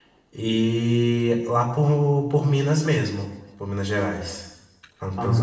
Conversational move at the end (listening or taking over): taking over